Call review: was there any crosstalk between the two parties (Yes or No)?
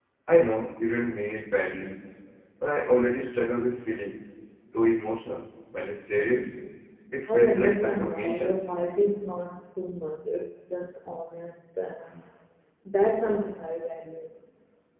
Yes